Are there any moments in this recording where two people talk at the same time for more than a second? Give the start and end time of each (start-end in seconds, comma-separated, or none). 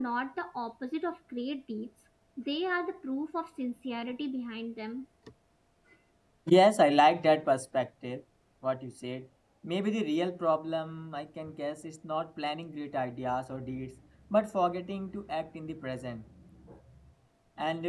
none